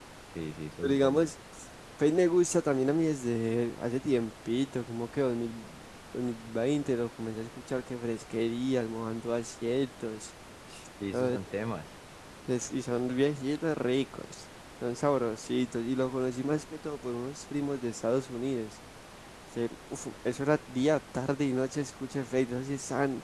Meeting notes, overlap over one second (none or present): none